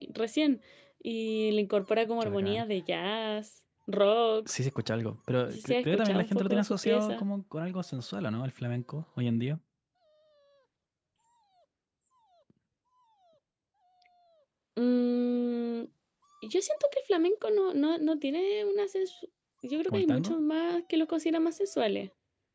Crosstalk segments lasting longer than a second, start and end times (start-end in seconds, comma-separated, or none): 5.5-7.2